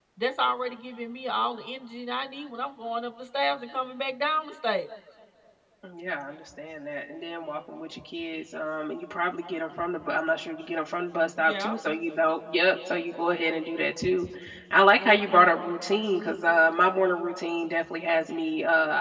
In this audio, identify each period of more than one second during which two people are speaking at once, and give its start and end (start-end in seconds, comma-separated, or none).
none